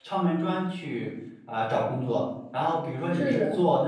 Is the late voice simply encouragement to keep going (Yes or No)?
Yes